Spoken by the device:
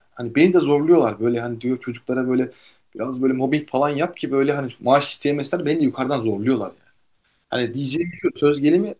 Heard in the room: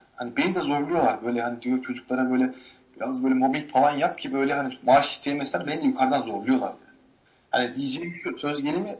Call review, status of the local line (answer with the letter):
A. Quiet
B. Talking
A